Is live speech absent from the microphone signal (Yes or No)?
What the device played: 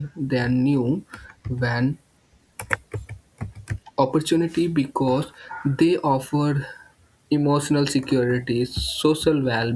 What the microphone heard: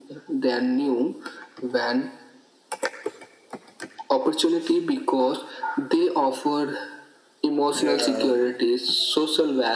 No